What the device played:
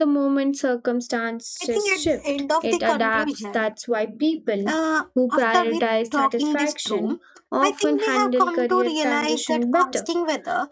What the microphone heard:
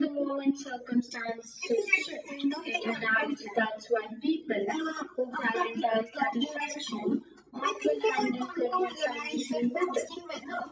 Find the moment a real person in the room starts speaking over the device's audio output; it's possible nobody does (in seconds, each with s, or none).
none